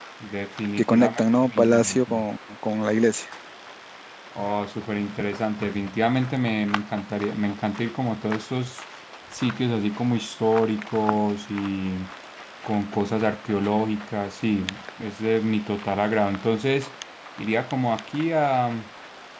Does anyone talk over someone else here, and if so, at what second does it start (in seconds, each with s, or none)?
0.8 s